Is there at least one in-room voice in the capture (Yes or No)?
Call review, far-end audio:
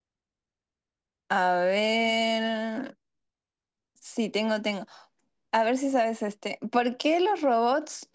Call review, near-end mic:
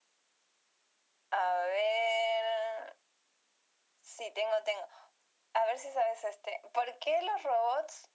No